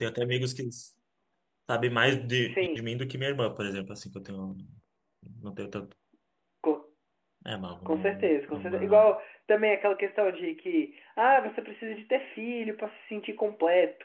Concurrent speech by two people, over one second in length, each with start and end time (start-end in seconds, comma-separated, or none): 7.8-9.1